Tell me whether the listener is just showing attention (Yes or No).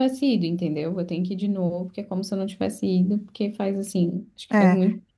No